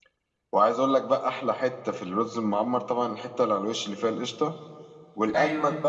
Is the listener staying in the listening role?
Yes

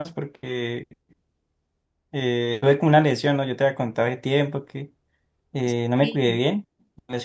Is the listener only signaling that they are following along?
Yes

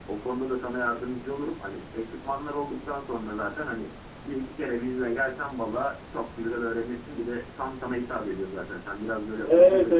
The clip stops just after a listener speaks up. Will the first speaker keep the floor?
No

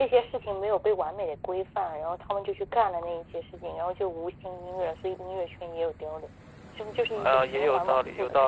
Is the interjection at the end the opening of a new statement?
Yes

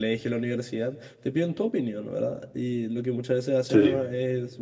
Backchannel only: Yes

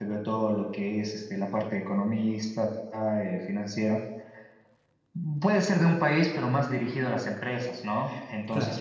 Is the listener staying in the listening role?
Yes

